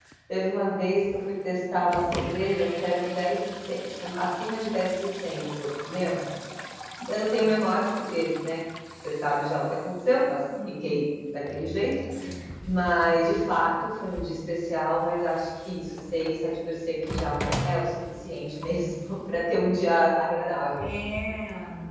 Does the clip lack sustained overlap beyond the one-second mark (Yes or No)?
Yes